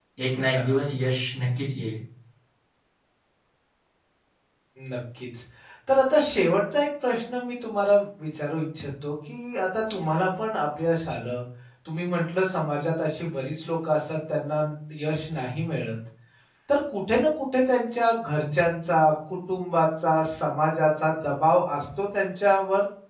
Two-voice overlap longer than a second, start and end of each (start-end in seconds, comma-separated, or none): none